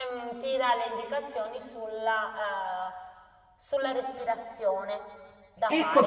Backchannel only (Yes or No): No